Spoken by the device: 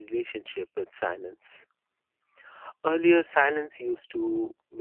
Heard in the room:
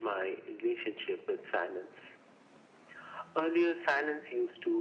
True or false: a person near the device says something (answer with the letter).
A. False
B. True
A